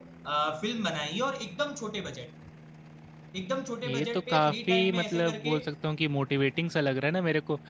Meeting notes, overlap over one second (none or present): present